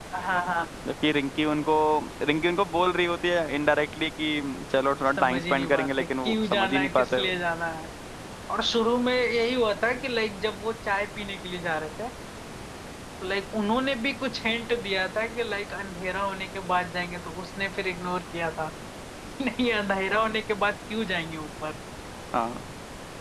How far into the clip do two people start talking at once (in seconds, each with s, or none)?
5.2 s